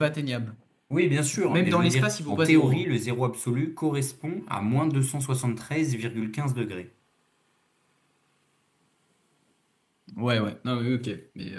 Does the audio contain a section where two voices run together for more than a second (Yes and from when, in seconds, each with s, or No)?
Yes, from 1.4 s